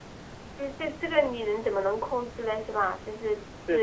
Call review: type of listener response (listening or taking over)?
listening